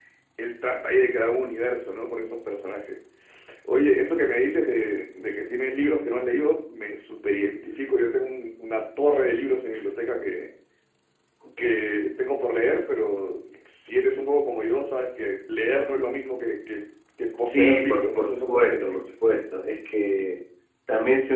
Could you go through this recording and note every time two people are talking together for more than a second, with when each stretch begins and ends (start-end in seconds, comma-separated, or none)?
17.4-19.1